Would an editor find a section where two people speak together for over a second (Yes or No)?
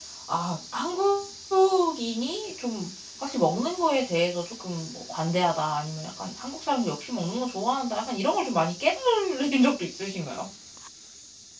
No